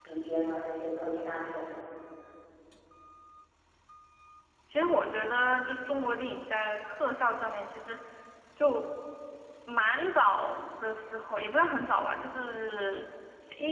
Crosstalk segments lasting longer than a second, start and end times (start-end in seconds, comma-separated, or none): none